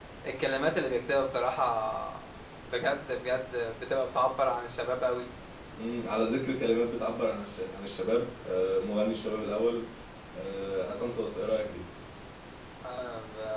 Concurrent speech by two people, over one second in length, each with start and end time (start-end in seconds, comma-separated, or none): none